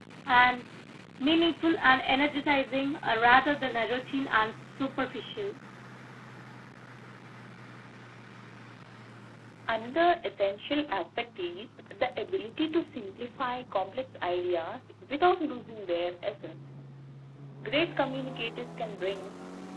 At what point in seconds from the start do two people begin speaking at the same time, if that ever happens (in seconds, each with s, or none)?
none